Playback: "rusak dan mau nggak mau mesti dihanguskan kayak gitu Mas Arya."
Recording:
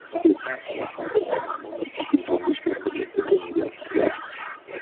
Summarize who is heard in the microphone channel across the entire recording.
echo only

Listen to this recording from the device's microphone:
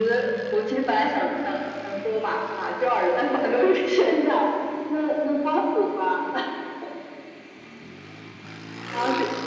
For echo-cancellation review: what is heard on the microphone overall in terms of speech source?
echo only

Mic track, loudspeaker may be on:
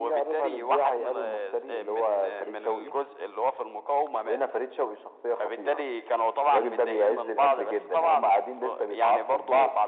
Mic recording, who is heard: echo only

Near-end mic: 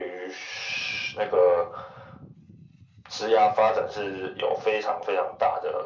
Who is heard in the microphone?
echo only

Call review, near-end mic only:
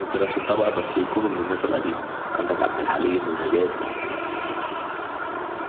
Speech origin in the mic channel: echo only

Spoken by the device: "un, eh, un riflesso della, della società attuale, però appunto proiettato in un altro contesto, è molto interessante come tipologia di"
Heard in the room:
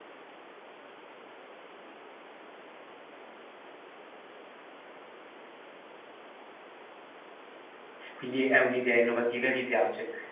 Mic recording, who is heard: user only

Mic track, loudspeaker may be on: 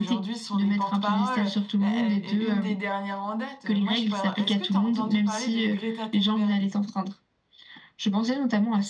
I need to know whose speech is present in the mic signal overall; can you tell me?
echo only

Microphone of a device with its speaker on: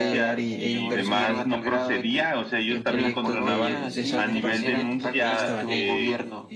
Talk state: both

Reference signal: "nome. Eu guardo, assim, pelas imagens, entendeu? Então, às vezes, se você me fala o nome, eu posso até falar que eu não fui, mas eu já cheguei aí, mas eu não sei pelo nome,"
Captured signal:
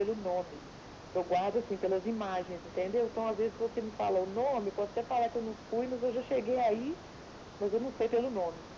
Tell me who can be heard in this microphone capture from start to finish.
echo only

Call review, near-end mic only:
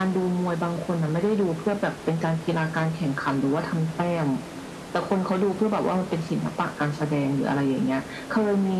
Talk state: echo only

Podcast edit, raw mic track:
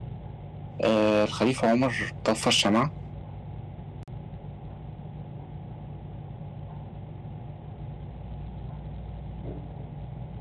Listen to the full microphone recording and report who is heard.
user only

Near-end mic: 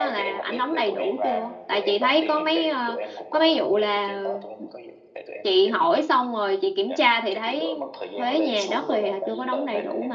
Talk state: both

